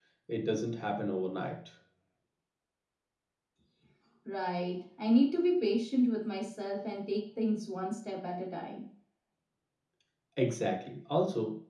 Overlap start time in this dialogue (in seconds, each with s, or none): none